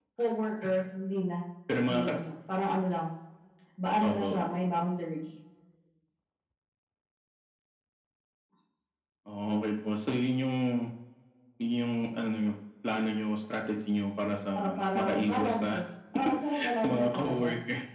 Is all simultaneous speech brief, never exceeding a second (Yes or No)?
No